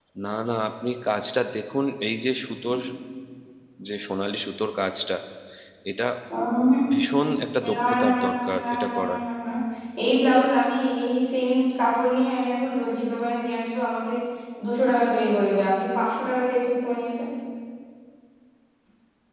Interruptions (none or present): present